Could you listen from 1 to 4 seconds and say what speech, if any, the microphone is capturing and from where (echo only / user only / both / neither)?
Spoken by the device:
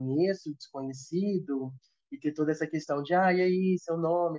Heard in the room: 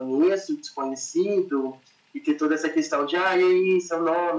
echo only